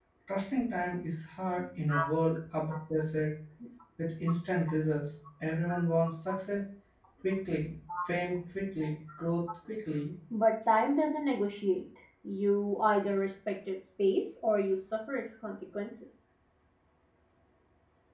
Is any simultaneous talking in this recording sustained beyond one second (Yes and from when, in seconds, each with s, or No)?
No